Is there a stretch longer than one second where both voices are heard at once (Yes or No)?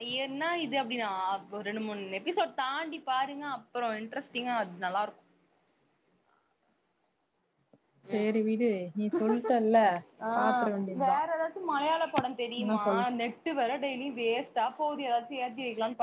No